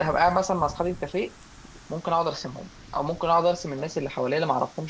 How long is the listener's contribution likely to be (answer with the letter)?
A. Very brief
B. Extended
A